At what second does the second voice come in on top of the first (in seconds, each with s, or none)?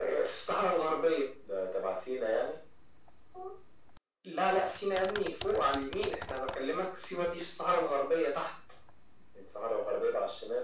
none